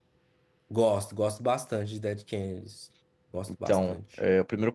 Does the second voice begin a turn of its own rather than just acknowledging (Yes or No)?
Yes